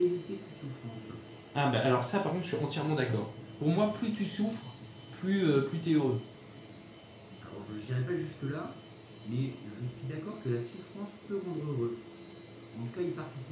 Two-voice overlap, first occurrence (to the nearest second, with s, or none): none